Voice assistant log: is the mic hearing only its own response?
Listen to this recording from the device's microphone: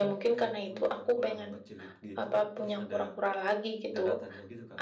No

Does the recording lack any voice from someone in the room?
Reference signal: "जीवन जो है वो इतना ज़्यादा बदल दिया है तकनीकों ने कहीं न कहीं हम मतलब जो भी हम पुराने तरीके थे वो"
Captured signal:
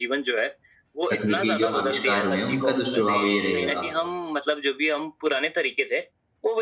No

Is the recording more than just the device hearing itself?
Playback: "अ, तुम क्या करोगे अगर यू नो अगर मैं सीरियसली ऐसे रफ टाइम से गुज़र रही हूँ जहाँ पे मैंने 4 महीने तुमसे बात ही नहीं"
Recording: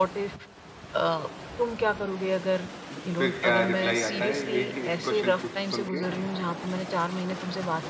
Yes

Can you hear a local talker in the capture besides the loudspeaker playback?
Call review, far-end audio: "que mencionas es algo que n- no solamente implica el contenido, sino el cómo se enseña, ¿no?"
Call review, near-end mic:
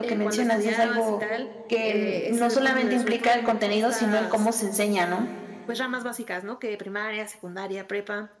Yes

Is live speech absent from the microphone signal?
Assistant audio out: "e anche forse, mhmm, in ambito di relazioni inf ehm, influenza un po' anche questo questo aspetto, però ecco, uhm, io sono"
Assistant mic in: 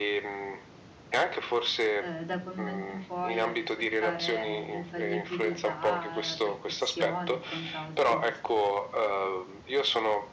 No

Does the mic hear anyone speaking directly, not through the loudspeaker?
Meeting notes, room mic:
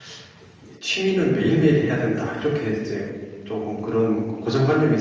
Yes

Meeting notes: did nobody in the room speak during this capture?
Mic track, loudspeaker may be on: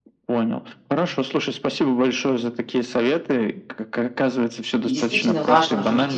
No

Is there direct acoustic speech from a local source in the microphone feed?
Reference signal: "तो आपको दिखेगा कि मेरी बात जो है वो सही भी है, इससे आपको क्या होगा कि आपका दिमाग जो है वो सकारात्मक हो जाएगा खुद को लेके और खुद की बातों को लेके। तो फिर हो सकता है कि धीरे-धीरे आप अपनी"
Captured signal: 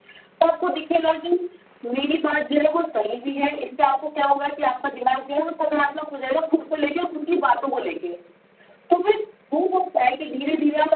No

